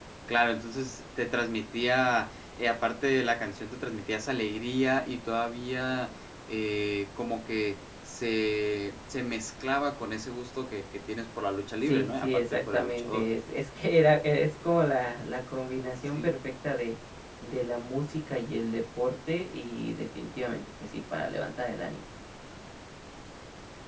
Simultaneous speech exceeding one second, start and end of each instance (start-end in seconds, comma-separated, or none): 11.8-13.2